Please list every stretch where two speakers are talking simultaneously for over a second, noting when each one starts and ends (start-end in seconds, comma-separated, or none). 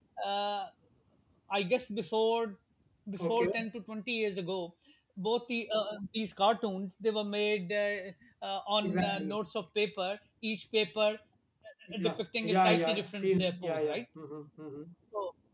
11.9-14.0